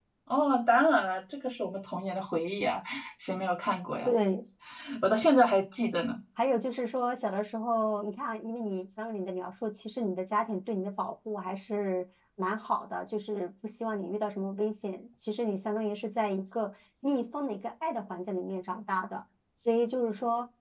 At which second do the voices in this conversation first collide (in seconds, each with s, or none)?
none